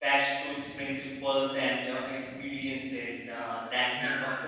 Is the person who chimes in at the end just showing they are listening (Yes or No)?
Yes